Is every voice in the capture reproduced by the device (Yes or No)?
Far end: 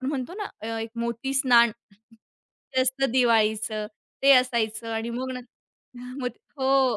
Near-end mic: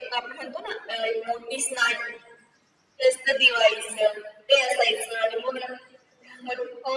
Yes